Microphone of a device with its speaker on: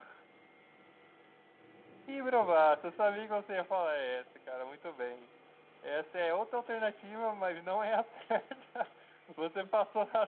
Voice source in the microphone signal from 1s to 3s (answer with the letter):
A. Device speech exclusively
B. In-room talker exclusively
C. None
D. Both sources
A